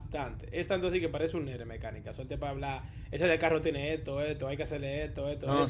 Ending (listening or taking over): taking over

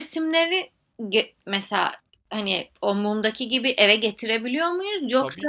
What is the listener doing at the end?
taking over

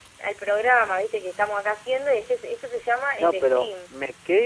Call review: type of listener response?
taking over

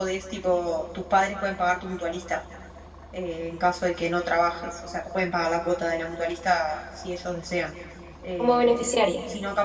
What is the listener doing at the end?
listening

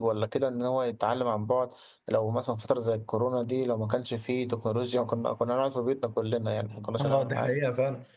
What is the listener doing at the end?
taking over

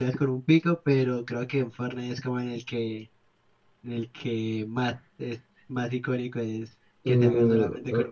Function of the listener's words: taking over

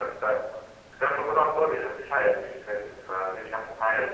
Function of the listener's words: taking over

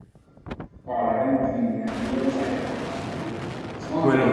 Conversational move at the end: taking over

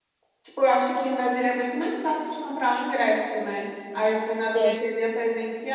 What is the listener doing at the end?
listening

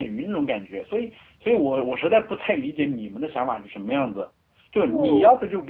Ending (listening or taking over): listening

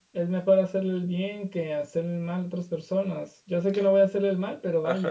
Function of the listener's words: taking over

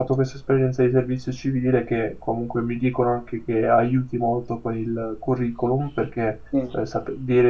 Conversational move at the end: listening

